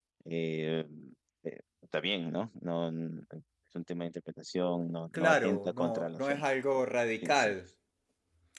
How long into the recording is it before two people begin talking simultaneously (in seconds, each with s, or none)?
5.1 s